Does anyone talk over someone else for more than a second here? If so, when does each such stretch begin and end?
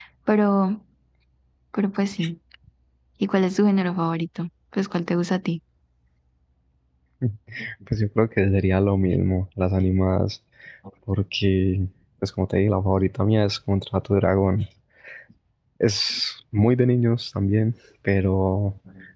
none

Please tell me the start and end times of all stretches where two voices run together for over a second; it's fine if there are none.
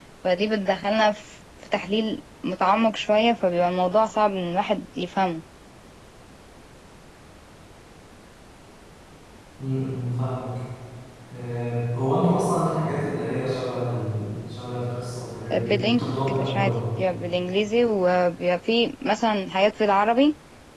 15.5-16.7

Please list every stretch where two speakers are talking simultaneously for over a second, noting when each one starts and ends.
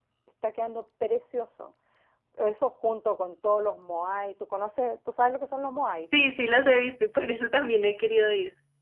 none

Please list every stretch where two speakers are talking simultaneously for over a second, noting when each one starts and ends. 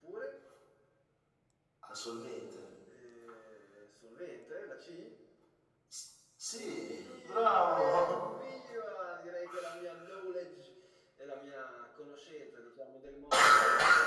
6.5-8.1

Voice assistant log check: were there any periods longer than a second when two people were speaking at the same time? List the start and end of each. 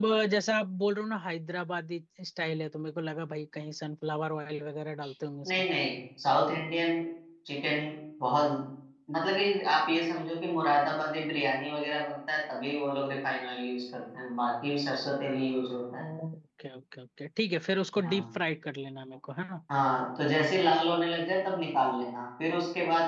none

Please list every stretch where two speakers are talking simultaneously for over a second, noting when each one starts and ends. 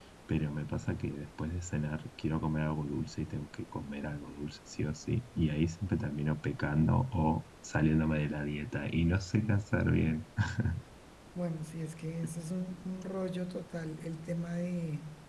none

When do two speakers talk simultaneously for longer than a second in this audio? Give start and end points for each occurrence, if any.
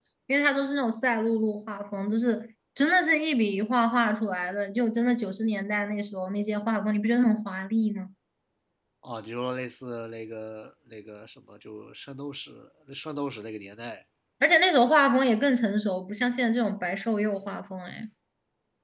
none

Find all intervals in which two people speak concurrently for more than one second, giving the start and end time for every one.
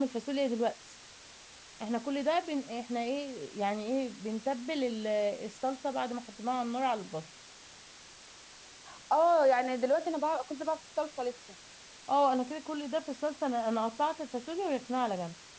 none

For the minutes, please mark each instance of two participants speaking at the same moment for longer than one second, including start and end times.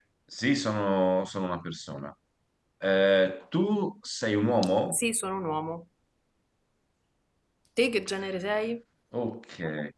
none

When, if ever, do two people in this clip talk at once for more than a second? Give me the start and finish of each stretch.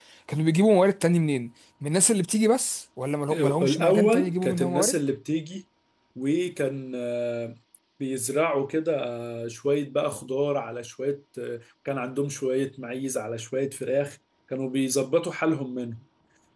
3.6-4.9

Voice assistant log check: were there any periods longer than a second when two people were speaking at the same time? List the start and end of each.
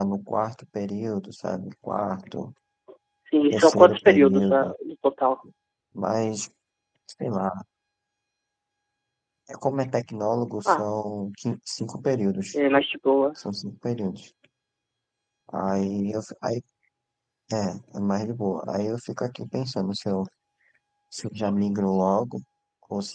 3.5-4.7

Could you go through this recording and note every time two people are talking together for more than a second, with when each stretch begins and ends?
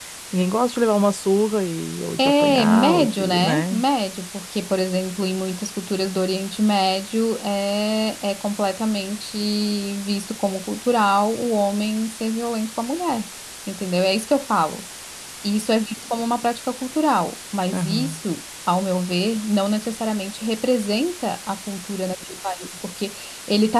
2.2-3.8

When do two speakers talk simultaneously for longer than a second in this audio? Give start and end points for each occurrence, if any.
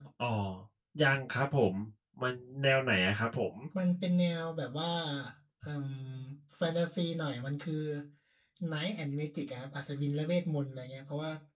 none

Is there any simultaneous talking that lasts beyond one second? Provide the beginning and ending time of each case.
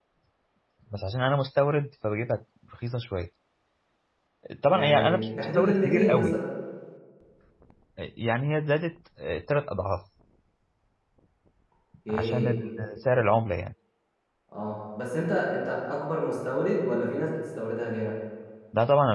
4.7-6.4

